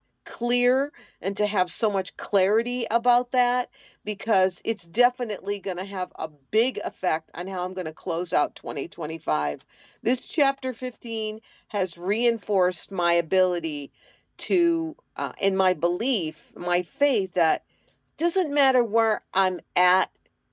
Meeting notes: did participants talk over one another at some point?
No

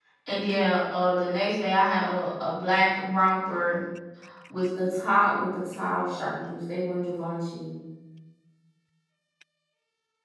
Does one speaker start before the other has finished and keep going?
No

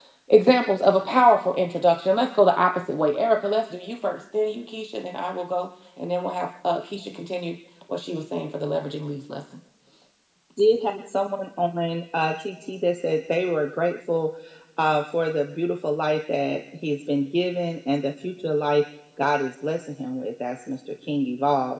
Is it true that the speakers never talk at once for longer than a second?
Yes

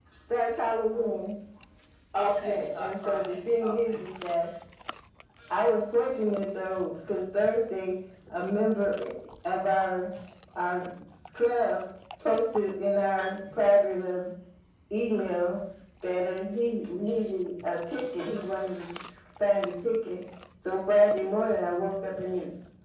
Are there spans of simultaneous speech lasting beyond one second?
Yes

